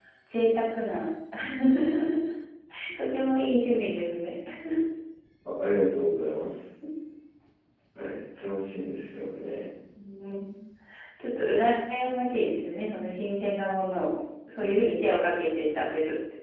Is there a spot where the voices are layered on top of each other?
No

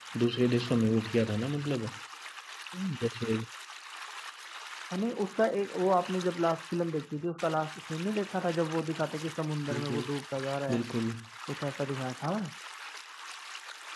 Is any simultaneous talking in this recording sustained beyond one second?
No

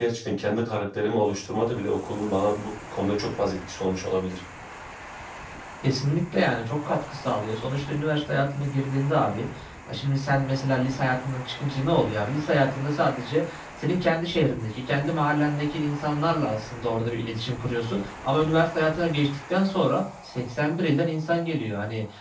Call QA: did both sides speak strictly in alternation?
Yes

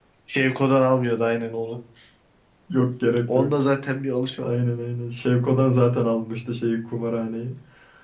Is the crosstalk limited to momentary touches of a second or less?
Yes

